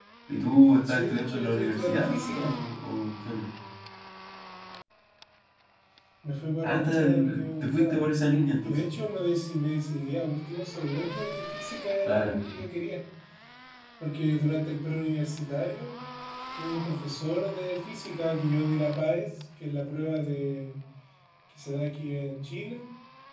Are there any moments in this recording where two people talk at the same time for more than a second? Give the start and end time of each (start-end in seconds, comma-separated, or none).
0.8-2.5, 6.6-8.0